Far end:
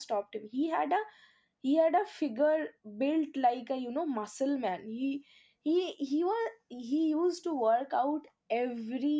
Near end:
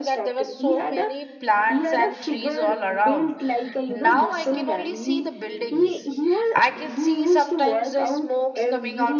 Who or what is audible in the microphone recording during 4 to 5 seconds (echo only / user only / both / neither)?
both